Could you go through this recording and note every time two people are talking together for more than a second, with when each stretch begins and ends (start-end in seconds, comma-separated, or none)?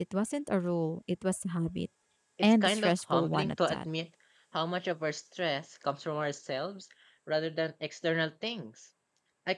2.4-3.9